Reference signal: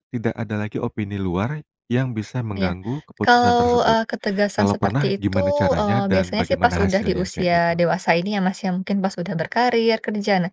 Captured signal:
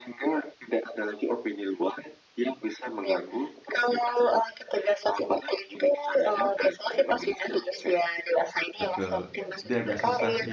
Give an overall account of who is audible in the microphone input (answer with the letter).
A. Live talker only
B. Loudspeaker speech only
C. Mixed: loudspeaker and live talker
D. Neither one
C